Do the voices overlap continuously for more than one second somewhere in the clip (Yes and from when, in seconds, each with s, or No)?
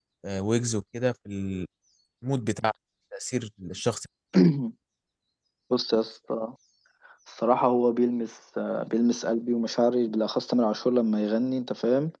No